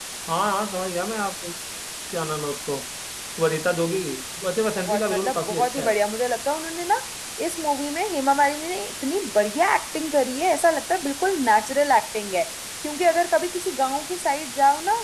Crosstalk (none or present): present